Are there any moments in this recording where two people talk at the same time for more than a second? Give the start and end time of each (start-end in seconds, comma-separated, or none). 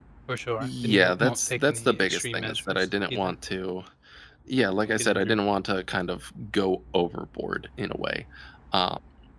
0.6-3.3